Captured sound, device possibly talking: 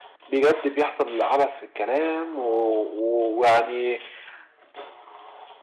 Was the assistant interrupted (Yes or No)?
No